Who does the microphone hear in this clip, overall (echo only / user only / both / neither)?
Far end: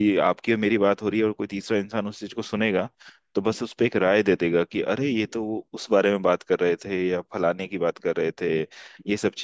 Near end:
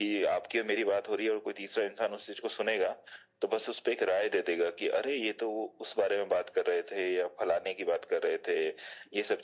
echo only